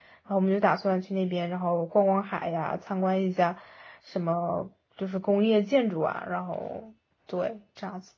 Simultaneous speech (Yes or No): No